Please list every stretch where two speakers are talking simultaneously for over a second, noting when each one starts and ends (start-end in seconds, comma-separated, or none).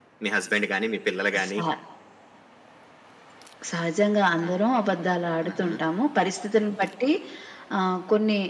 none